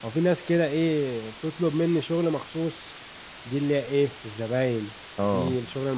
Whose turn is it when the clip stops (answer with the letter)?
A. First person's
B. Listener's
A